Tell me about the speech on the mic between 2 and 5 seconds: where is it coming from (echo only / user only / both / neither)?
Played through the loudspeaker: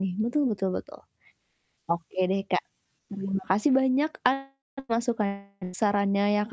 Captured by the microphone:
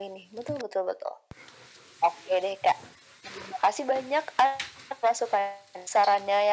echo only